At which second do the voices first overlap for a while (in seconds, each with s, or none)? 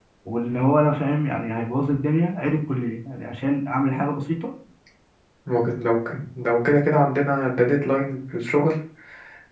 none